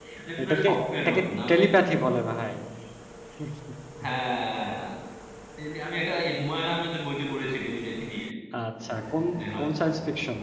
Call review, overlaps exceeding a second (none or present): present